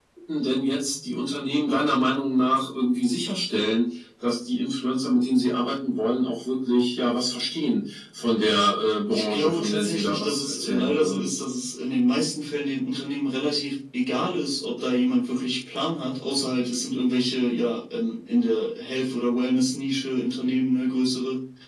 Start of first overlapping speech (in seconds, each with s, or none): 9.1 s